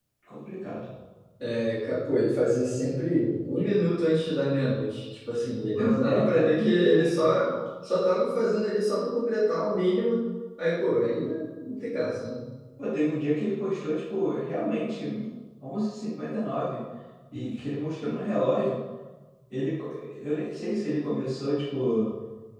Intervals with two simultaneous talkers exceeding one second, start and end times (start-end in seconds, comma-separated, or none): 5.8-7.3